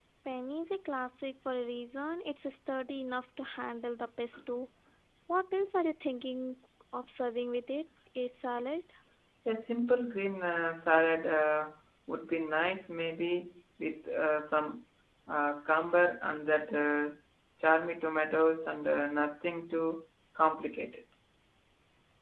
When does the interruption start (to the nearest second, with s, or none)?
none